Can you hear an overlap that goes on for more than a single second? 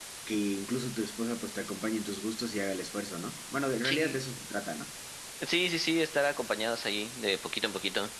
No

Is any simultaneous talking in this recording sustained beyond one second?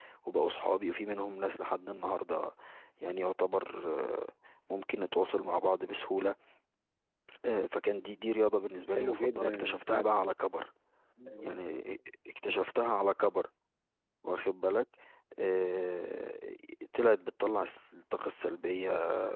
Yes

